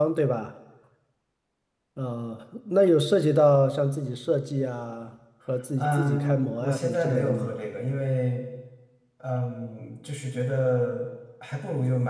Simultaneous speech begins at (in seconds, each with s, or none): 5.8 s